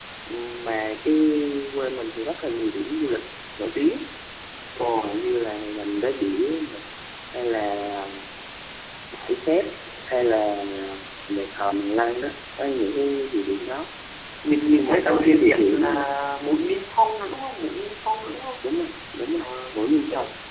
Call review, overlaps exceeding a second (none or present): present